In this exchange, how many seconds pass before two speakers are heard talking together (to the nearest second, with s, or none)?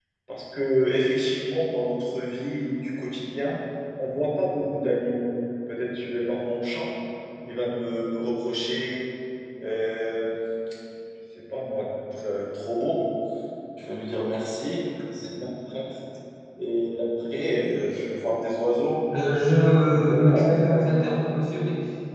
20 s